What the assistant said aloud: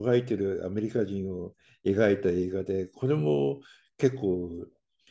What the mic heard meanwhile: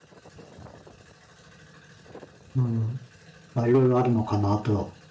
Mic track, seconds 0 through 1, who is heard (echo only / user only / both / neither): neither